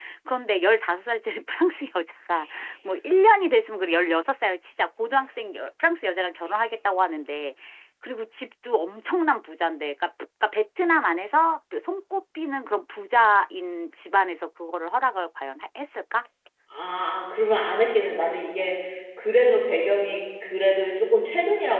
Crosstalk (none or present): none